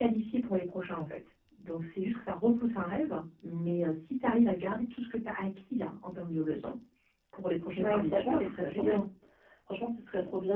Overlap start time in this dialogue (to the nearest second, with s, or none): 8 s